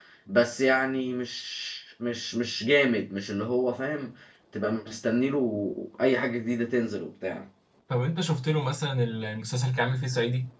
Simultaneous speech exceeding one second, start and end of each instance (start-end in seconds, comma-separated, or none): none